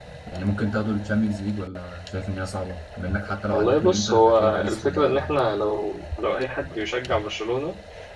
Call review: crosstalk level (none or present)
present